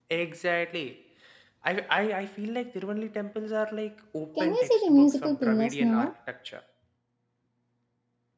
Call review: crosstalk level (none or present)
present